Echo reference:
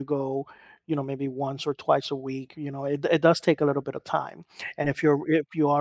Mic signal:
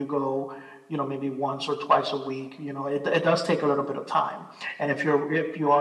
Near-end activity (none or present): none